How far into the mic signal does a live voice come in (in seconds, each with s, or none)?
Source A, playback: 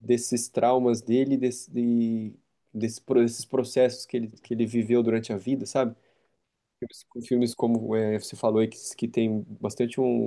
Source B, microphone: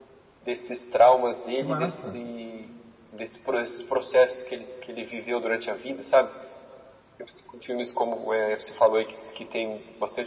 1.6 s